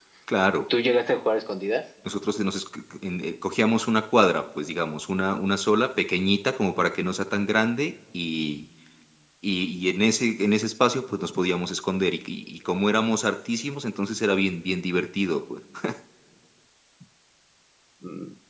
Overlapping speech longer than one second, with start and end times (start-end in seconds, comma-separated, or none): none